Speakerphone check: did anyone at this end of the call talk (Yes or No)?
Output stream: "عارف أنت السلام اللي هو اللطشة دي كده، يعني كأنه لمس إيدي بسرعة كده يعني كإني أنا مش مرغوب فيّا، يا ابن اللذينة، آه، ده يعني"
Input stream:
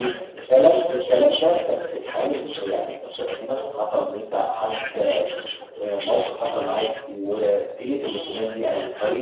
Yes